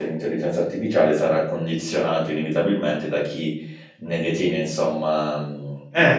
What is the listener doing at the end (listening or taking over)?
listening